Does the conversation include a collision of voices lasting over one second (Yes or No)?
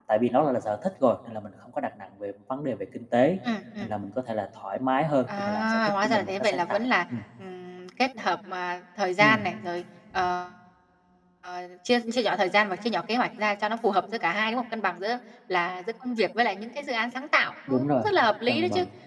Yes